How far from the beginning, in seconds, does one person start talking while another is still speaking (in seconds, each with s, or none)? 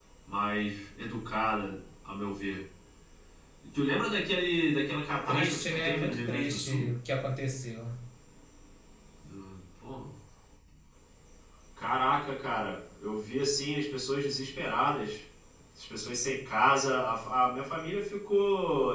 5.3 s